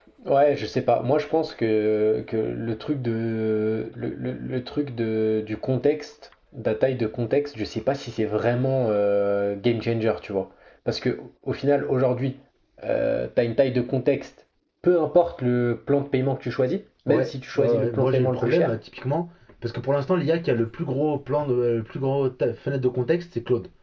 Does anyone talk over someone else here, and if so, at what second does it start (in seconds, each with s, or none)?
17.1 s